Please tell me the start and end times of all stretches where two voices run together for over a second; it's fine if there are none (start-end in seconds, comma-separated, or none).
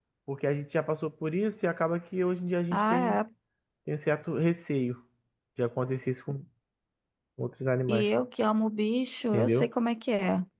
none